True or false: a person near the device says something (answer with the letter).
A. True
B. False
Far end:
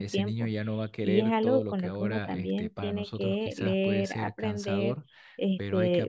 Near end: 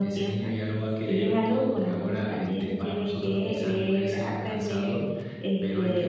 B